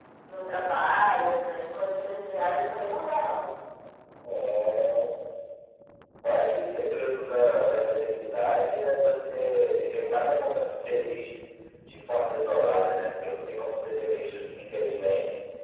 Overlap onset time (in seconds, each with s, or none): none